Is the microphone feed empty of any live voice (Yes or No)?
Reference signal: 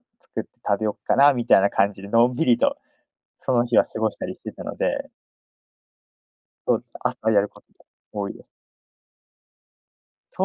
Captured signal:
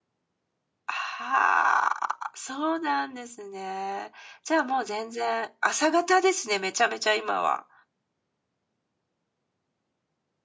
No